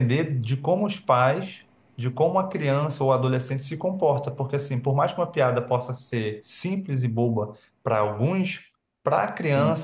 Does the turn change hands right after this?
No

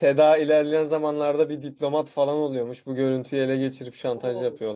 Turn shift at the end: Yes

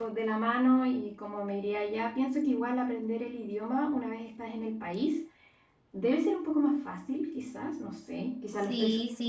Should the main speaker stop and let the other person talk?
Yes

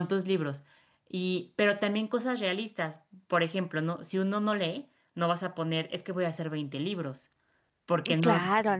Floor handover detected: Yes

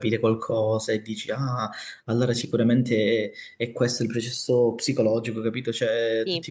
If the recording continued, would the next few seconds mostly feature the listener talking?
No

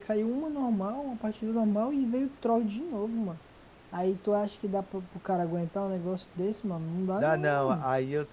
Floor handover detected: Yes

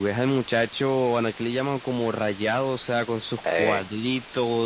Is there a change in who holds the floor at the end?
No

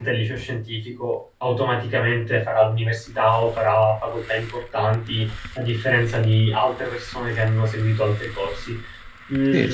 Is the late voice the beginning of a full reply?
Yes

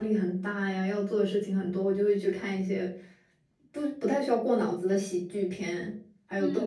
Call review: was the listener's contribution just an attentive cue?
No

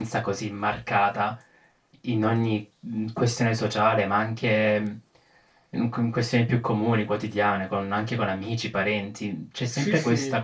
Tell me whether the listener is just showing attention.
Yes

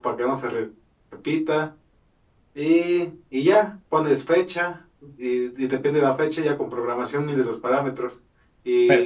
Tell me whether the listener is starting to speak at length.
No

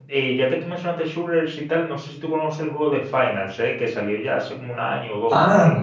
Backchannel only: No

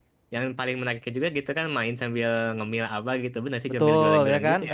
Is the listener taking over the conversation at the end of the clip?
Yes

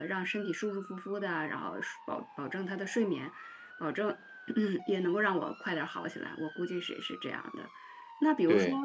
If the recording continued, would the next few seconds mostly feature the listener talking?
No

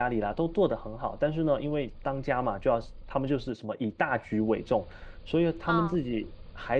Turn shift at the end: No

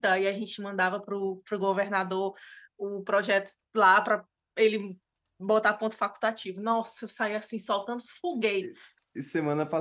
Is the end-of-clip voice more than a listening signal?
Yes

